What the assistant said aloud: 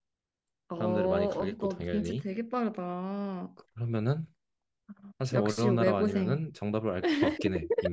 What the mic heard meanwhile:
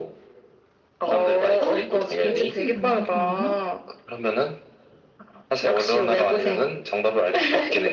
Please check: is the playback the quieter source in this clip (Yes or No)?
No